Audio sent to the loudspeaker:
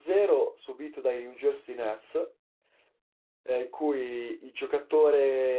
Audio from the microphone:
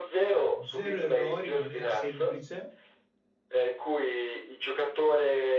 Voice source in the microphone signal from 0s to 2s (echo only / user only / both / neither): both